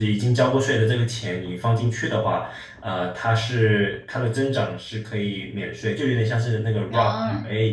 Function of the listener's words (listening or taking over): listening